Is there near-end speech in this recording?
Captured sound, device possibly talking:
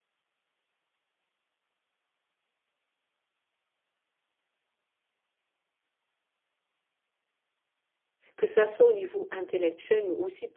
Yes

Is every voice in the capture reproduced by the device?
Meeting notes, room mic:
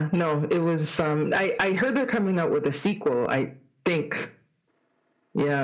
Yes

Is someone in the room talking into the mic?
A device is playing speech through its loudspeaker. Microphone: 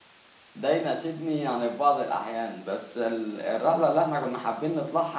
Yes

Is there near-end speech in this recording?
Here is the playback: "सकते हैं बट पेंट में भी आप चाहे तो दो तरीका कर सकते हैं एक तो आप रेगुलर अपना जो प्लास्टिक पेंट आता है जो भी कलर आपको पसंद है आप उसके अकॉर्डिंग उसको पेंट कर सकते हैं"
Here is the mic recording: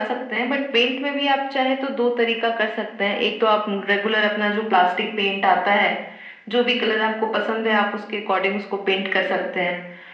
No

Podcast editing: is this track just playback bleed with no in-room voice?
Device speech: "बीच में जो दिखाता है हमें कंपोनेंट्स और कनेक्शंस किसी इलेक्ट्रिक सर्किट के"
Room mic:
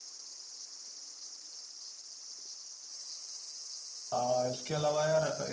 No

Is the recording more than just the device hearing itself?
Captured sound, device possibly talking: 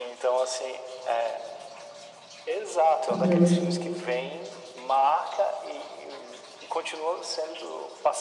Yes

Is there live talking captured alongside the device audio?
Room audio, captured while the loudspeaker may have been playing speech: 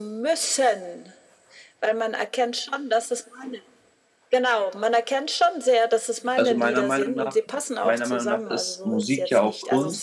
Yes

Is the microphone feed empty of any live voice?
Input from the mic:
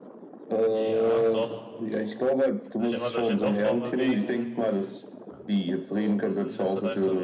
No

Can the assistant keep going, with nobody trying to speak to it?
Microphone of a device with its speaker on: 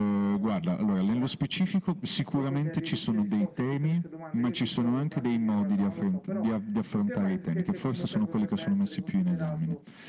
No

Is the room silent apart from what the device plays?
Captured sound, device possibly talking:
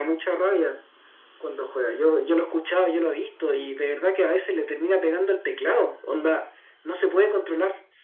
Yes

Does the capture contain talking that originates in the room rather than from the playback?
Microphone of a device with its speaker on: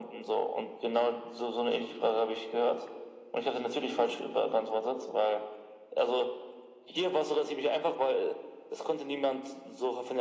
No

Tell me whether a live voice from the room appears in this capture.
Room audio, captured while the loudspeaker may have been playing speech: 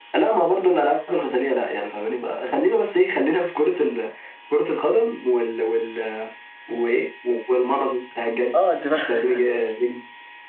Yes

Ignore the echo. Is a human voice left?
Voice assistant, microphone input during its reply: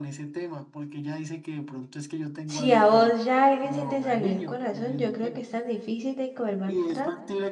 Yes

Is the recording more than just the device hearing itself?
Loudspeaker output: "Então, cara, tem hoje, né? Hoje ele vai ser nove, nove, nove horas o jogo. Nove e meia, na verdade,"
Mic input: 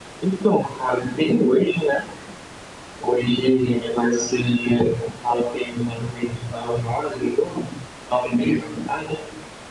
No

